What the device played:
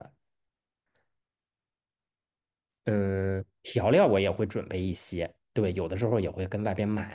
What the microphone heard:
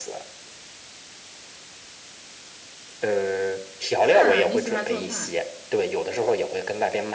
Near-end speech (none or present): present